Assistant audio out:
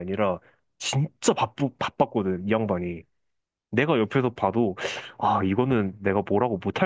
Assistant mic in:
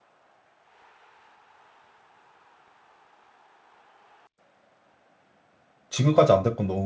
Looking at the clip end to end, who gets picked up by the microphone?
user only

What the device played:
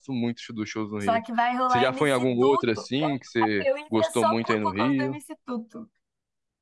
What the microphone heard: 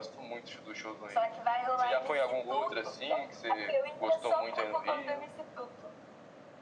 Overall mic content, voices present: echo only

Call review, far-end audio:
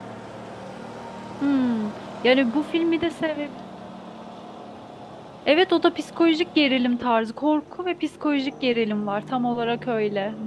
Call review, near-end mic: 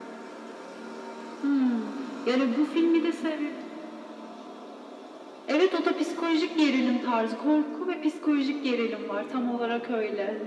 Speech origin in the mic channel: echo only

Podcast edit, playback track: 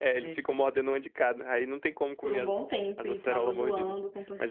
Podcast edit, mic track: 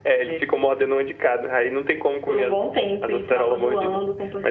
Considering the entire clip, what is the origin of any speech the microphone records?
echo only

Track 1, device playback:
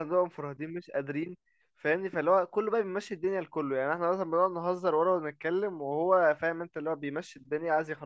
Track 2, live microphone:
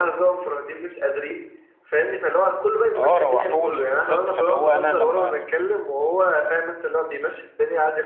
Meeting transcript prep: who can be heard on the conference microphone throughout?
both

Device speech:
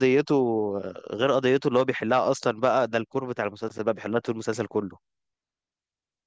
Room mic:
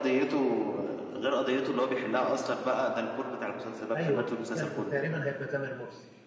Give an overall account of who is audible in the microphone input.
both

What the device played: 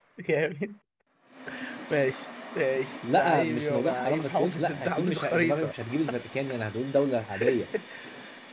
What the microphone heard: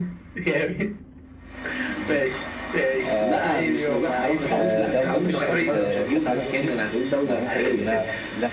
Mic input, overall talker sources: both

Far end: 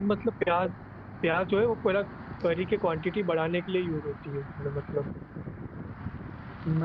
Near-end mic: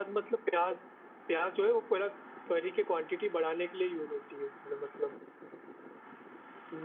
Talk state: echo only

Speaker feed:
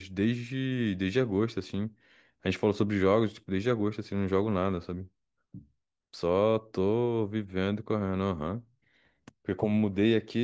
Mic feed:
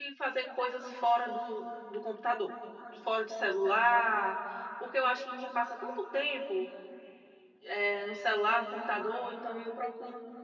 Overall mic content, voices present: user only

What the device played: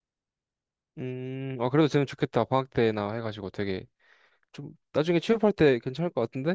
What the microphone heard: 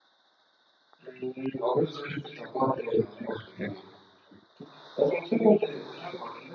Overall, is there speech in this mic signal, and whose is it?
echo only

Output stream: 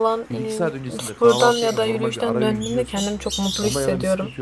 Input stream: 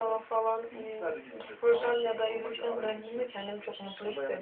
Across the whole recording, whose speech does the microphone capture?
echo only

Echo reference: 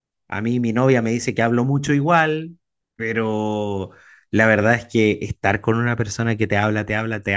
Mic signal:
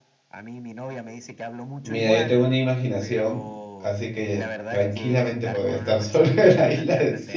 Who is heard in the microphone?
both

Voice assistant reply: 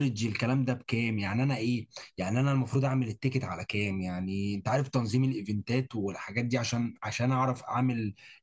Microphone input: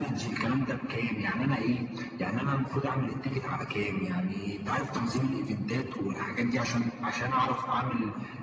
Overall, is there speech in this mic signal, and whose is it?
echo only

